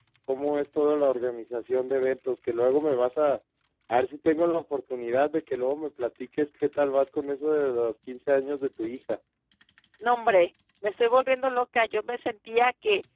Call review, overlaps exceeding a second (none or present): none